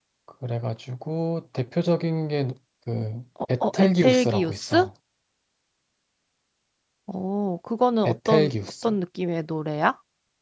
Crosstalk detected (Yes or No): Yes